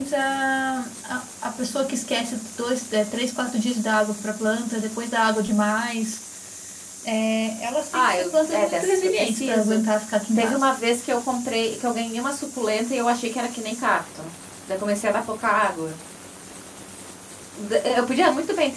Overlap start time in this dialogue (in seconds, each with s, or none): 7.9 s